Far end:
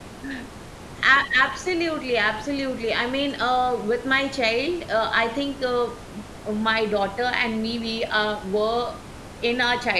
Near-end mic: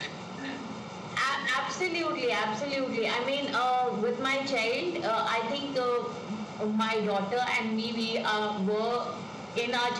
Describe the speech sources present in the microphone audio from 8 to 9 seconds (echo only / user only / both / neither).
echo only